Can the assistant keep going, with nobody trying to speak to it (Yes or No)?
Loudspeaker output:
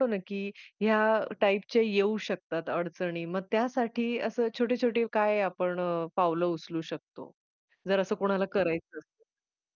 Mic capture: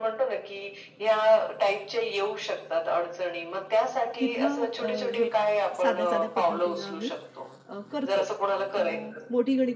No